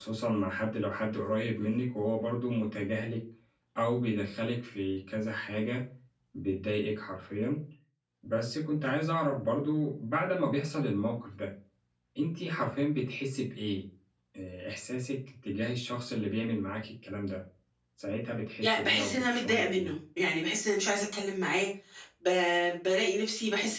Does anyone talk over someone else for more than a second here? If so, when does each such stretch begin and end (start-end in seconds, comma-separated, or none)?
18.6-19.9